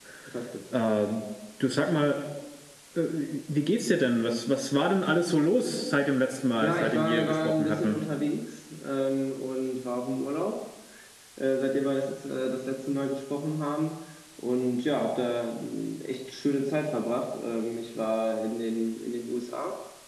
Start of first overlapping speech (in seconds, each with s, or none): 6.6 s